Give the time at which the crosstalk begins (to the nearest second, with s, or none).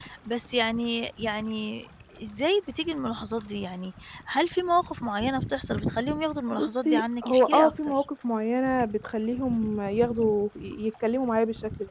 7 s